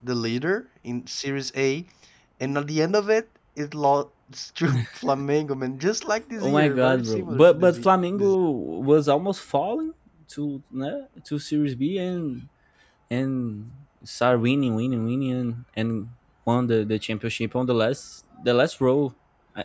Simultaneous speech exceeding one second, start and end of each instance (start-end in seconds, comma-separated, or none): 6.4-7.9